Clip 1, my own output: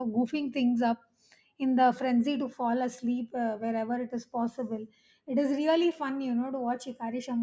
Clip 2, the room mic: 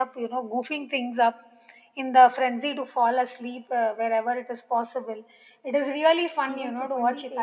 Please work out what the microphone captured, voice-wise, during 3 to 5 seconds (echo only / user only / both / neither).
echo only